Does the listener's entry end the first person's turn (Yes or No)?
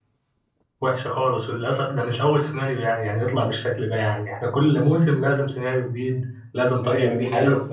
Yes